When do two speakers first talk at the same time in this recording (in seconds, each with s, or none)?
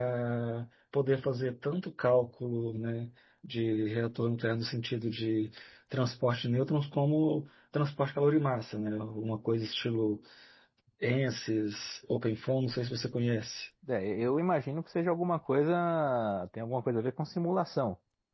none